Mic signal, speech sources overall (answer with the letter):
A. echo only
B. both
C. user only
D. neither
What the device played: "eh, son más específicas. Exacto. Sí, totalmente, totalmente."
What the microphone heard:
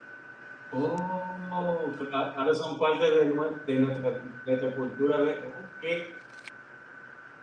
C